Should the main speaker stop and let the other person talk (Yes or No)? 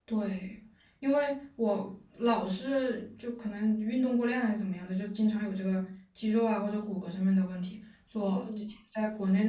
No